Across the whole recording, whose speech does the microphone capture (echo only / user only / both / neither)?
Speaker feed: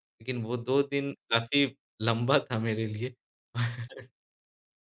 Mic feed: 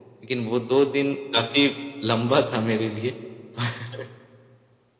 echo only